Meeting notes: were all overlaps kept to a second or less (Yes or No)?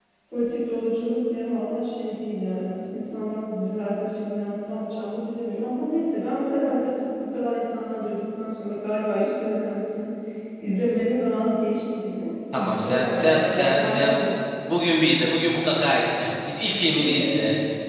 No